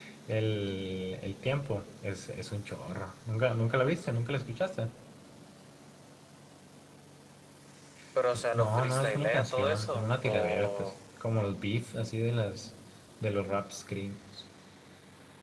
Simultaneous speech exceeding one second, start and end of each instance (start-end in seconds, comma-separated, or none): 8.5-10.9